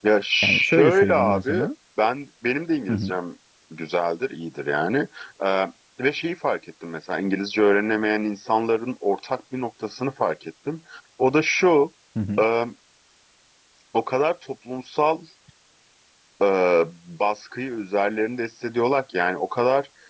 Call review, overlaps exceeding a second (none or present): present